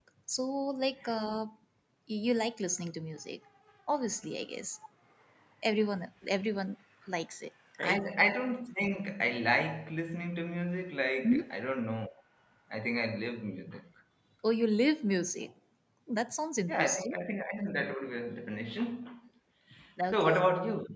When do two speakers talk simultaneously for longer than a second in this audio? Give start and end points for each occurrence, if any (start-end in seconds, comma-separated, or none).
none